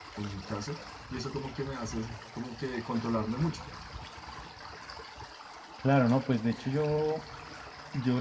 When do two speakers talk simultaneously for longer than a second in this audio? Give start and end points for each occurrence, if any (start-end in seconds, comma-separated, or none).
none